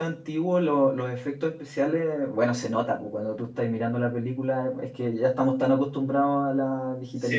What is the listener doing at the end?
listening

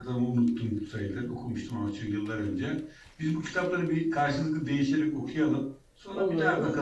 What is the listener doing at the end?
listening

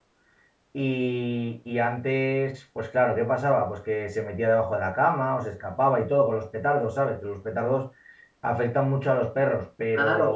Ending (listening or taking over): taking over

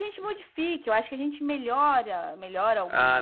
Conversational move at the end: taking over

